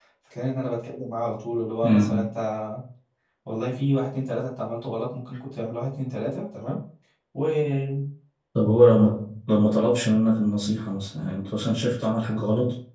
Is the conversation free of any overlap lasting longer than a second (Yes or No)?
Yes